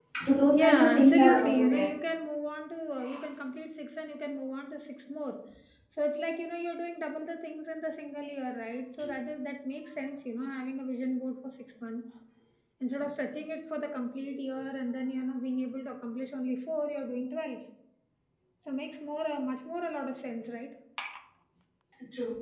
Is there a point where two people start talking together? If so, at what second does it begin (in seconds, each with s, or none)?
0.6 s